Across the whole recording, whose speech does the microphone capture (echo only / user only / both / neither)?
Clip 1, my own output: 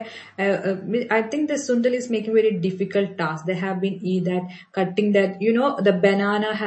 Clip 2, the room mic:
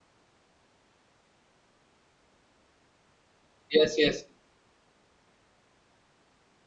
user only